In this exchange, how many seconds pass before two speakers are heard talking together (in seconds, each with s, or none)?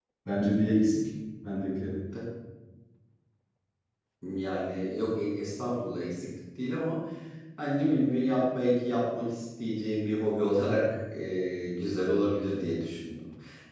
none